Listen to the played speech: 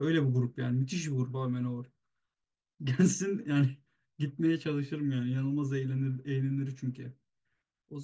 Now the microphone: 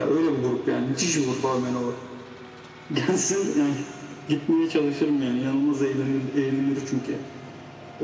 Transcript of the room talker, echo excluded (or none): none